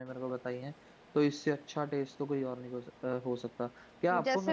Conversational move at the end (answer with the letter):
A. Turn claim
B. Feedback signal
A